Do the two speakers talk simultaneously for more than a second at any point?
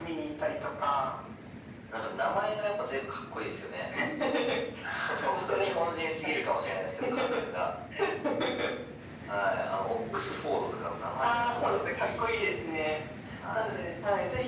Yes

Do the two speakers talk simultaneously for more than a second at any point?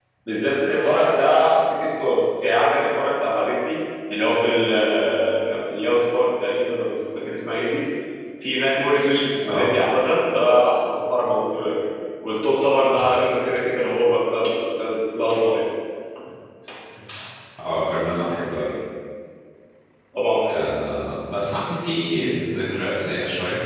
No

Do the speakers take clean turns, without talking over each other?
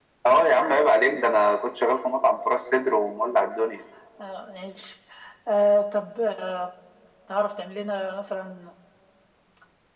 Yes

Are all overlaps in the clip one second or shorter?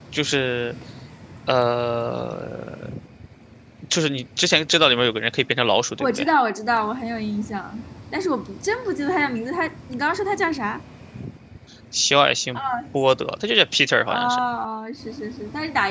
Yes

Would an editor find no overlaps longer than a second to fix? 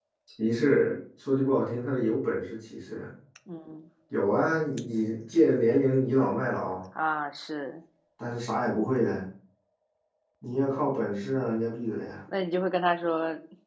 Yes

